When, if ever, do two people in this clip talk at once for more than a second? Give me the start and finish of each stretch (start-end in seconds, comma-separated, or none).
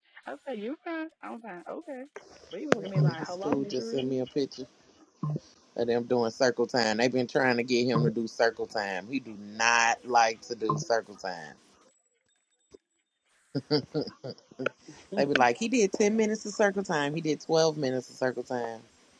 3.0-4.2